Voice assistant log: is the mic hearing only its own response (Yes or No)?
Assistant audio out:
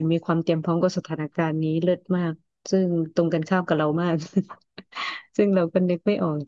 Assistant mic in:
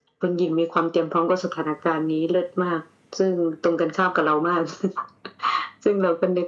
Yes